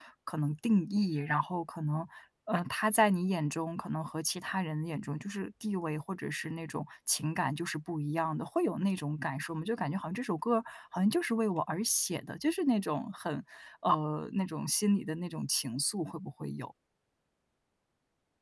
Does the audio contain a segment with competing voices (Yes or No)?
No